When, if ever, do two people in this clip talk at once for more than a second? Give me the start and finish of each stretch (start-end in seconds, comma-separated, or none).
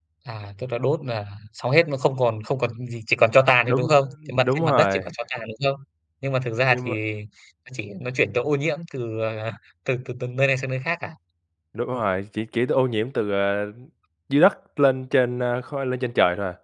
3.7-5.0